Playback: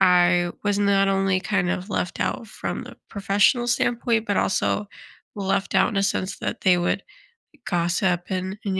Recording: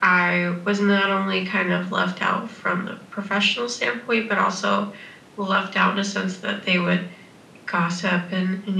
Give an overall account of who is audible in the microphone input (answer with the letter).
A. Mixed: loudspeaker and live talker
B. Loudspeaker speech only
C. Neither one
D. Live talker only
B